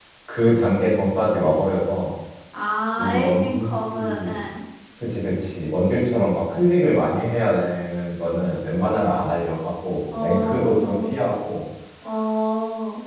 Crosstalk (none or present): present